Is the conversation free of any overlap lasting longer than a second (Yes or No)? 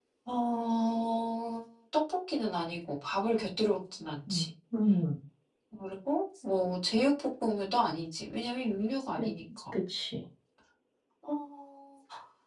Yes